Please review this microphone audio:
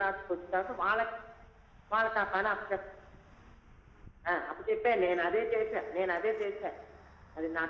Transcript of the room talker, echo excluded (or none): none